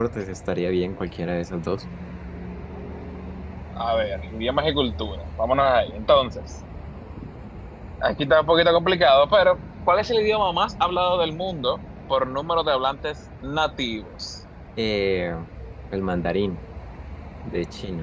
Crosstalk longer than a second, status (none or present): none